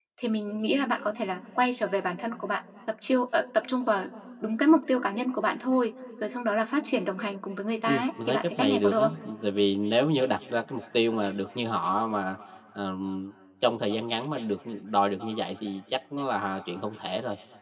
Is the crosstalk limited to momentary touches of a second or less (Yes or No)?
No